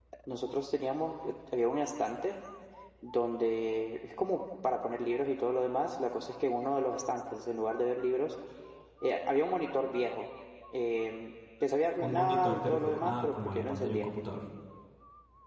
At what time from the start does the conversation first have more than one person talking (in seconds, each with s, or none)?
12.0 s